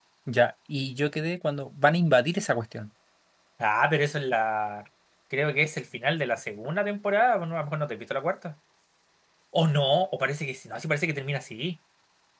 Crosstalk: none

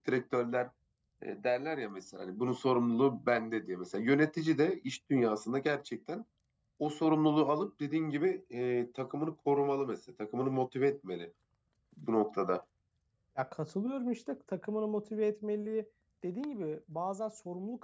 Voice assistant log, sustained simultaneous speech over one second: none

